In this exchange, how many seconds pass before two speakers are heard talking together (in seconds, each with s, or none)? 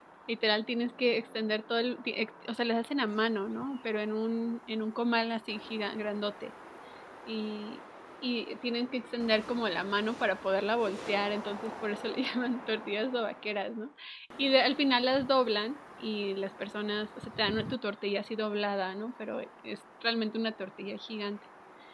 none